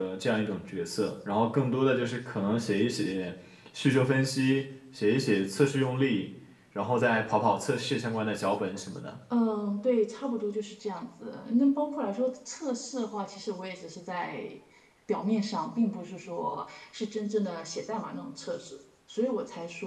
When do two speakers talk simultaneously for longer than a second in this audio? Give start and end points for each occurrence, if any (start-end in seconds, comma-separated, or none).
none